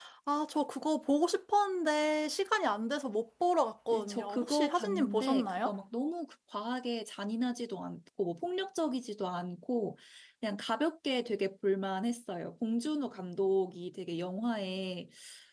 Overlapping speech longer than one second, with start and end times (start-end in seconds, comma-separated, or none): 3.9-5.7